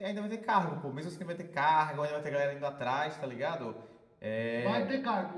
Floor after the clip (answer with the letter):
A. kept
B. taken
B